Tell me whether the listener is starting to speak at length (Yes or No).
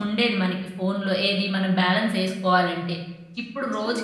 No